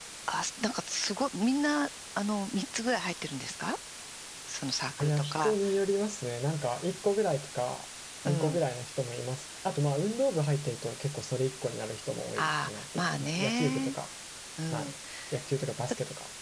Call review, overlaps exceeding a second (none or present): present